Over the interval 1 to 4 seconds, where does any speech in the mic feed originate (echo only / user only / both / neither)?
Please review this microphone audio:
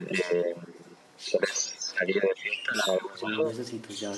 both